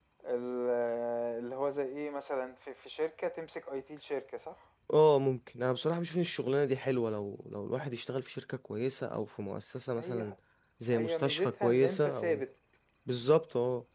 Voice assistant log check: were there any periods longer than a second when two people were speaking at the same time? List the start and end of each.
10.9-12.4

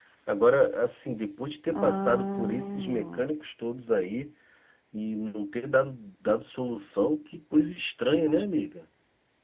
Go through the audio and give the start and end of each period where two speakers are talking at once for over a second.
1.7-3.3

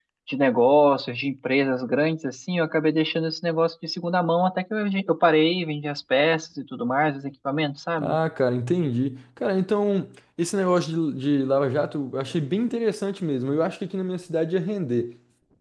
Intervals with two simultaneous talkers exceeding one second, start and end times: none

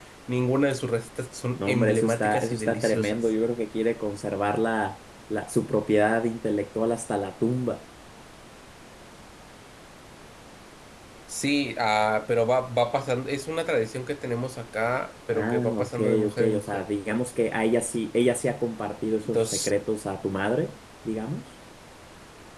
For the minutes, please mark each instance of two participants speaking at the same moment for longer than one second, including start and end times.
1.6-3.3, 15.3-16.8

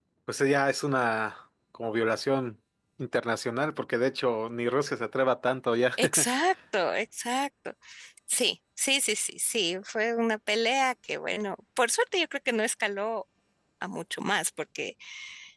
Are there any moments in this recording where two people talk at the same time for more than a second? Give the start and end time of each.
none

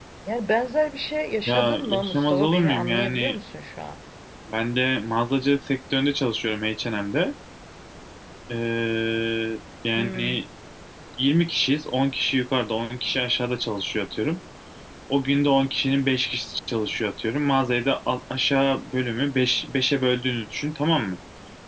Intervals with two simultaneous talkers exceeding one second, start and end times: 1.5-3.4

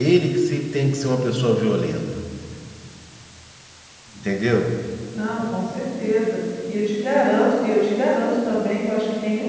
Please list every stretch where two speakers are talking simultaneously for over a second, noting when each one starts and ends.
none

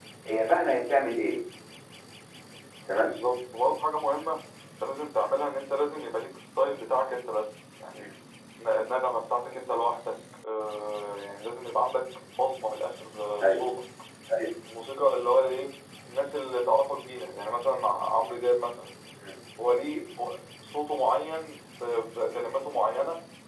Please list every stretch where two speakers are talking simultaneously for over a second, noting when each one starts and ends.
none

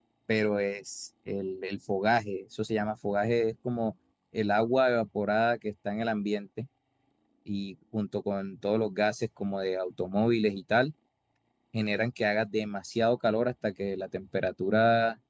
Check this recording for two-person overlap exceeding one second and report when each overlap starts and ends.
none

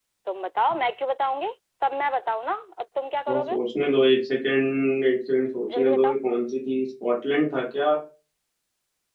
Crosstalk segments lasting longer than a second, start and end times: none

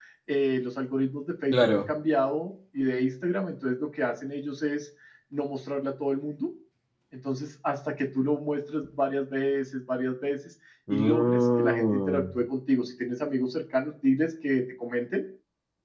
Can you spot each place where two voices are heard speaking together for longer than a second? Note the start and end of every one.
10.9-12.2

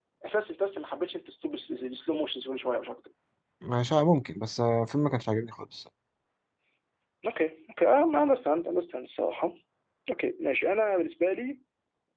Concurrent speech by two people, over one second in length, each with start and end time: none

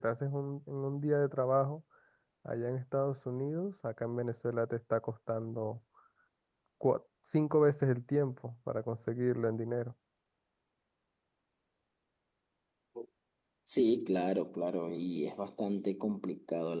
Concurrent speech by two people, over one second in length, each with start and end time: none

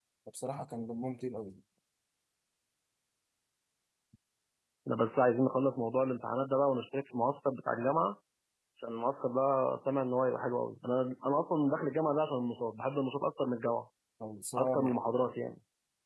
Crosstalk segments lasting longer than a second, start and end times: none

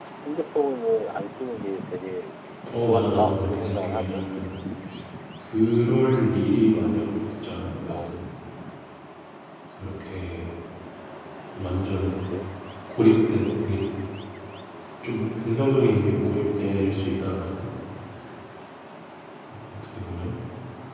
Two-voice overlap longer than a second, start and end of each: 2.8-4.3

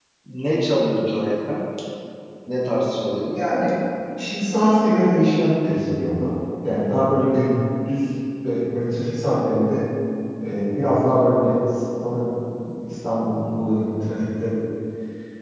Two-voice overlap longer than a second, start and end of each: none

